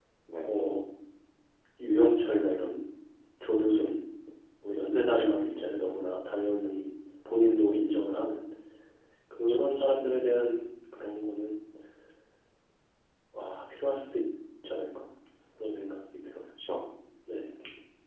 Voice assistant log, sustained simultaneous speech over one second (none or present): none